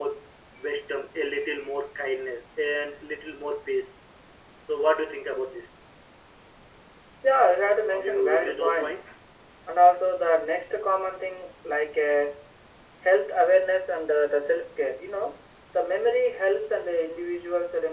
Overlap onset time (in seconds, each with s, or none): 7.9 s